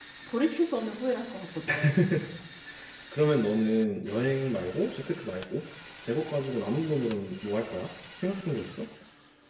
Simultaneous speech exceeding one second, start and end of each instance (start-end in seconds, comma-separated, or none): none